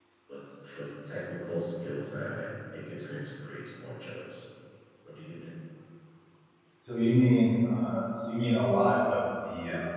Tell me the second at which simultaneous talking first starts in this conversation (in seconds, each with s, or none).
none